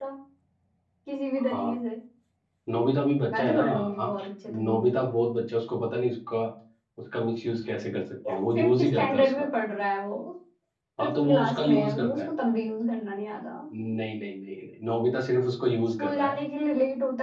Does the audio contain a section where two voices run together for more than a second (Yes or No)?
Yes